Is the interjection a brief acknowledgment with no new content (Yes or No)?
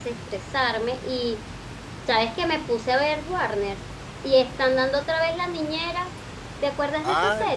No